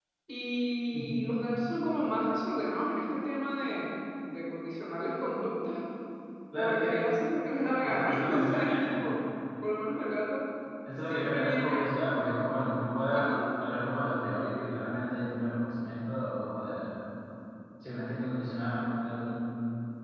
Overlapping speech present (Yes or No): Yes